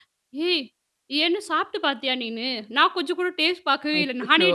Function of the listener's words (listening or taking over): listening